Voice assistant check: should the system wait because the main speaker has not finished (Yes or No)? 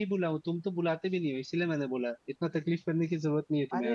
No